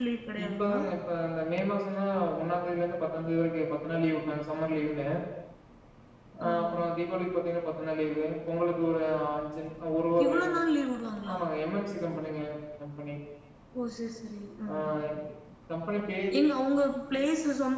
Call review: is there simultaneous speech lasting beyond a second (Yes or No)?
No